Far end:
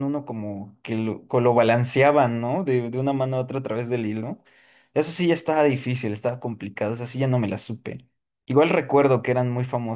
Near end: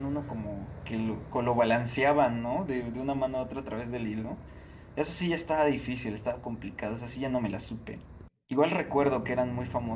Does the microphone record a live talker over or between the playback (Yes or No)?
No